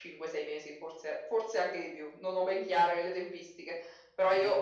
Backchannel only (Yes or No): Yes